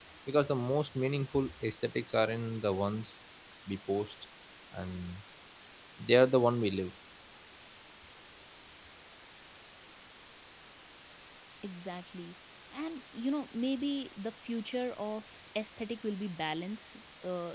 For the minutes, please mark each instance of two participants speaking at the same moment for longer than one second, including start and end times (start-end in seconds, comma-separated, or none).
none